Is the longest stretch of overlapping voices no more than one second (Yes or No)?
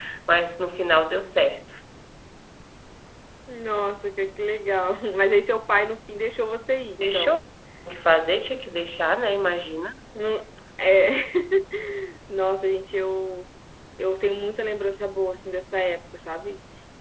Yes